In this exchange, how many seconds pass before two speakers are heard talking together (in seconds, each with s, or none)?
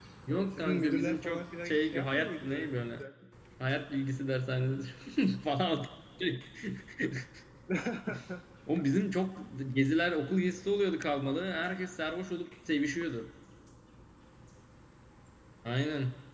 0.6 s